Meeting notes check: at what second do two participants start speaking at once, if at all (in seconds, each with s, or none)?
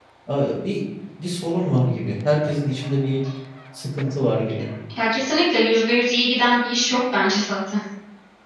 none